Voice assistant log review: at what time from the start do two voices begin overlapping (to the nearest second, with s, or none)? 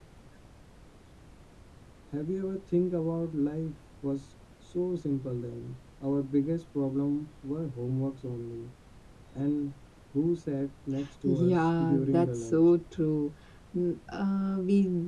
11 s